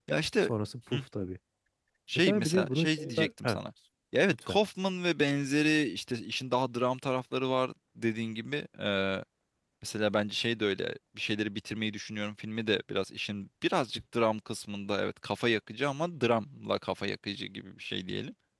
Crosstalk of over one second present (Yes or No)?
Yes